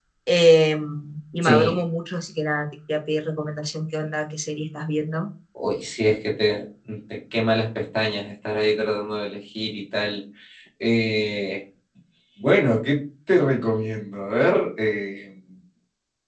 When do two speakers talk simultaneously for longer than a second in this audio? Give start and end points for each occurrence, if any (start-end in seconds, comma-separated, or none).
none